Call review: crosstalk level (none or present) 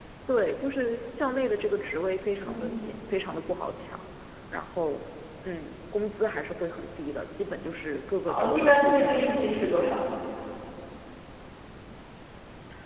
present